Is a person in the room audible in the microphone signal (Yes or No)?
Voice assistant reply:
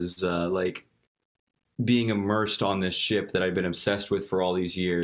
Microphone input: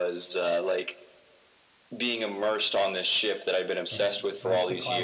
Yes